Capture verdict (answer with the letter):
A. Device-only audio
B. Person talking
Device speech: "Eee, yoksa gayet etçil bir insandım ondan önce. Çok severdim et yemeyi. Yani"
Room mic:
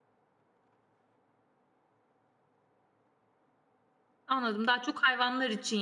B